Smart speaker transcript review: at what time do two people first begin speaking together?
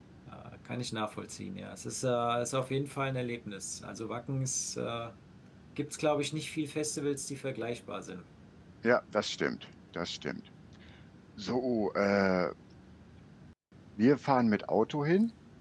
none

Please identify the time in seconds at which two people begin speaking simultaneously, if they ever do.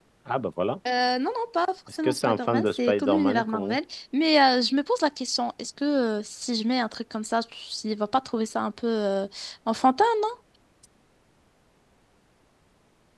1.9 s

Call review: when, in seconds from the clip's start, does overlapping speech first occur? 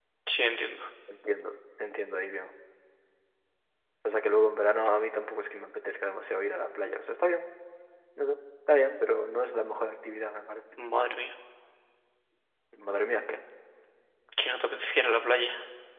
none

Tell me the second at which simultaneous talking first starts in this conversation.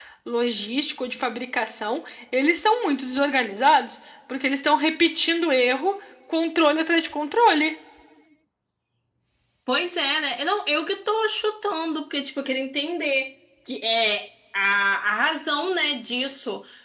none

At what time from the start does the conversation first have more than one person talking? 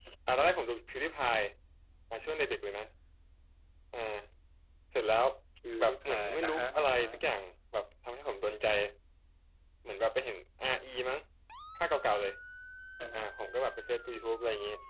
5.8 s

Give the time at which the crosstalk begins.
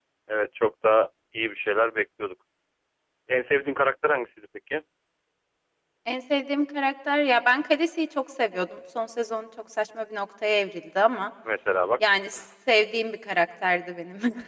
none

